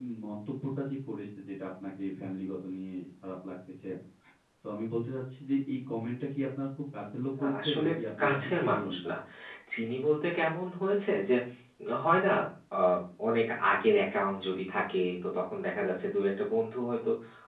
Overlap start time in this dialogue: 7 s

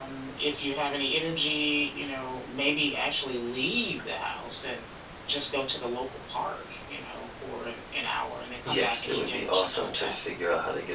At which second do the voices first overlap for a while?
9 s

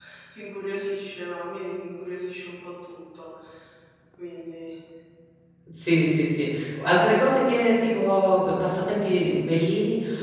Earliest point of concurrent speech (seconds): none

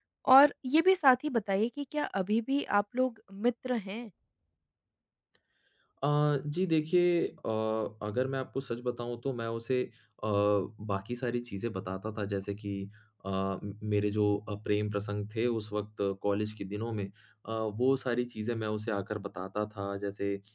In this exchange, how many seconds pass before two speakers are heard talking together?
none

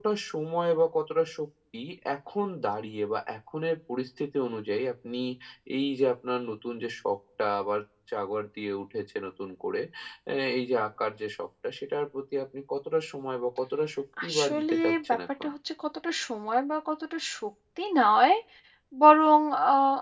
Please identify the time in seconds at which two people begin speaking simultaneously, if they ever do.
14 s

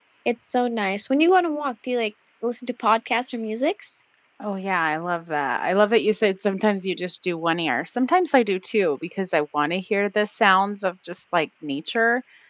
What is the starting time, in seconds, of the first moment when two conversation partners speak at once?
none

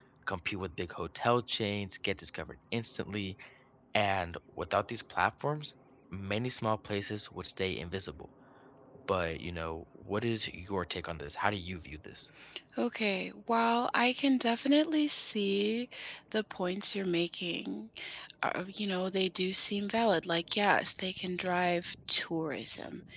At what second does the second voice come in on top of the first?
none

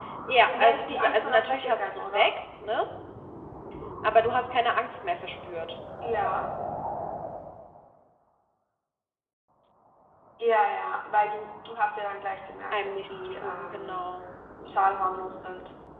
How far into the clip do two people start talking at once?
1 s

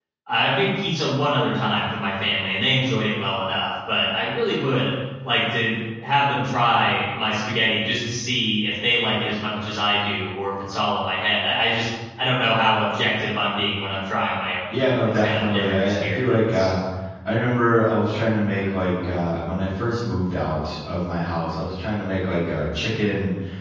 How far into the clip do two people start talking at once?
15 s

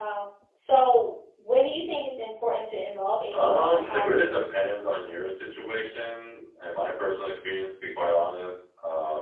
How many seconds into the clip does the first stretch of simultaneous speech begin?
3 s

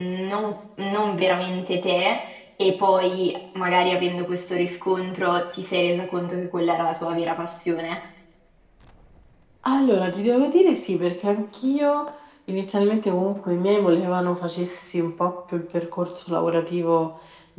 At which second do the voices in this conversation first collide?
none

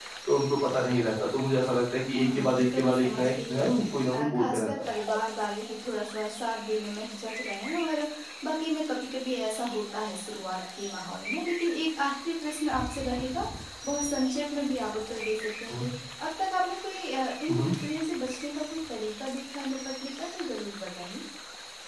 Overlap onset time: 2 s

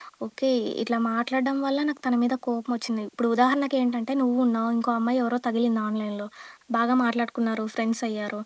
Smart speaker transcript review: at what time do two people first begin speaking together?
none

